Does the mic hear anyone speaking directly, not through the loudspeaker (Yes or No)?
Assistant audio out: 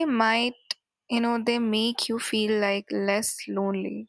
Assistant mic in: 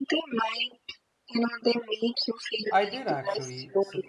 Yes